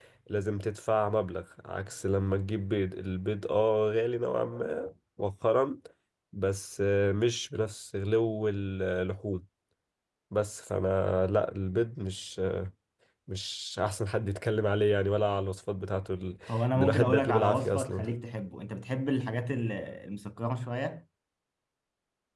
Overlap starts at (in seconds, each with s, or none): 16.7 s